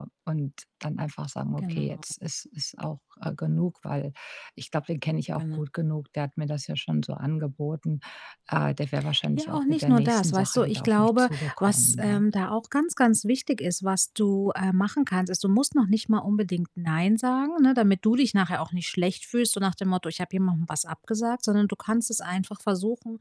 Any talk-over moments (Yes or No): Yes